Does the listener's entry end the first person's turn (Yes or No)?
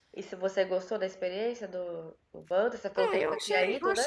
Yes